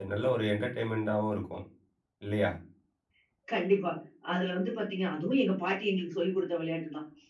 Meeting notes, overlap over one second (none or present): none